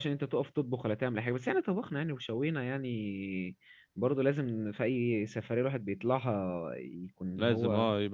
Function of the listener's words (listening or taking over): taking over